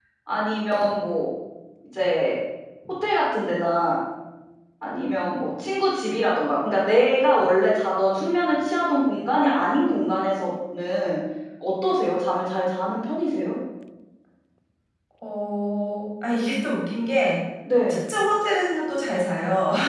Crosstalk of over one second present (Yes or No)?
No